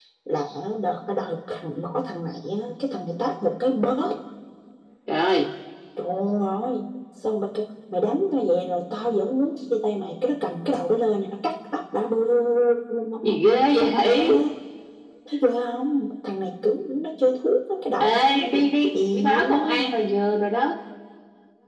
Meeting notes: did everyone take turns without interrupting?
No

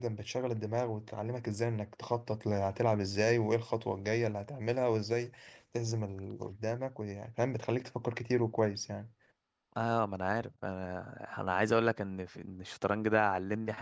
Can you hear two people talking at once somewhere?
No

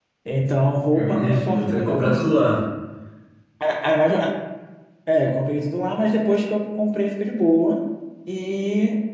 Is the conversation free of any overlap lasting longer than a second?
No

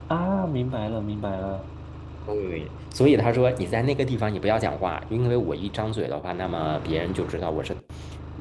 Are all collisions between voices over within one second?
Yes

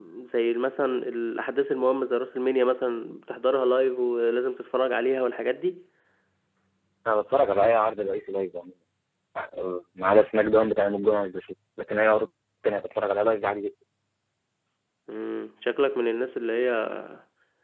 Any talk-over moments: No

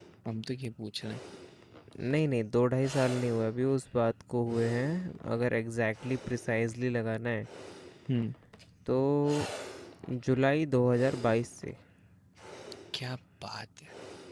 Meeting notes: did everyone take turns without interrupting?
Yes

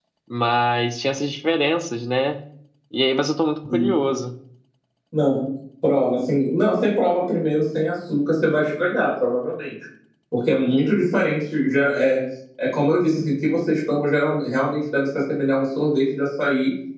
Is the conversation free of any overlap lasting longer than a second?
Yes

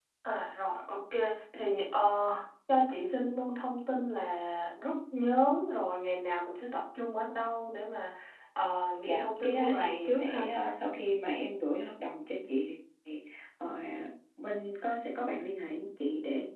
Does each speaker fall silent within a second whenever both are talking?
No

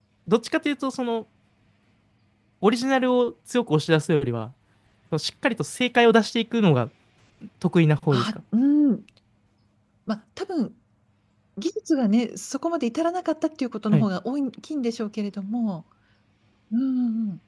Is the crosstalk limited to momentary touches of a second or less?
Yes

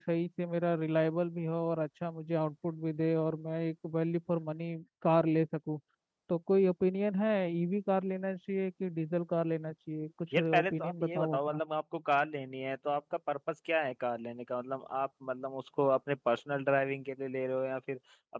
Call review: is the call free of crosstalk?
No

